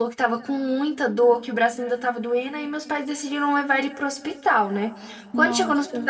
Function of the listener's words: listening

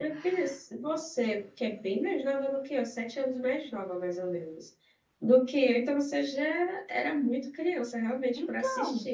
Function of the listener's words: taking over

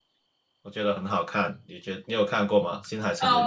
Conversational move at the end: taking over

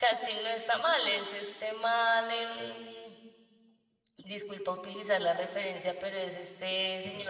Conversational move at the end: listening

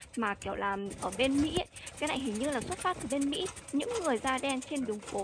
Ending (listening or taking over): listening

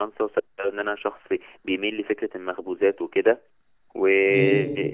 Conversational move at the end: listening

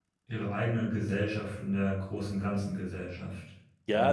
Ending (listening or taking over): taking over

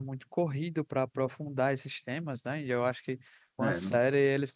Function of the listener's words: listening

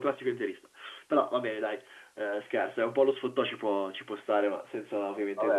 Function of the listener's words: taking over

